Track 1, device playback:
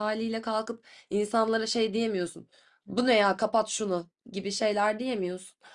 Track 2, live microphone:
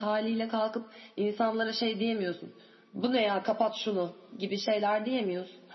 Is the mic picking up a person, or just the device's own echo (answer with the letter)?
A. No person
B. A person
A